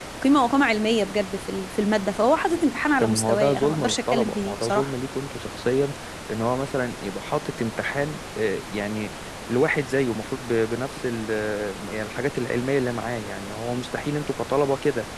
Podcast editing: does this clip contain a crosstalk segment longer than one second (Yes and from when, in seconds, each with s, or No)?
Yes, from 3.0 s